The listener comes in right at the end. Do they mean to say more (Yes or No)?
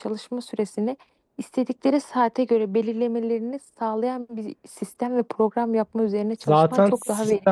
Yes